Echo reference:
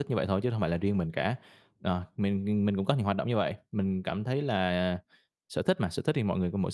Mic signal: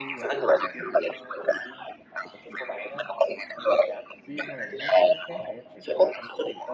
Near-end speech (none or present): present